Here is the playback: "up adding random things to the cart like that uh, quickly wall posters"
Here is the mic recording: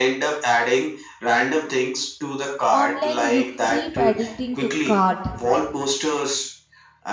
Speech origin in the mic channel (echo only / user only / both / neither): both